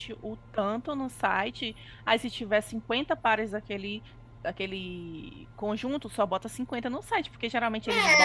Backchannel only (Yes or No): No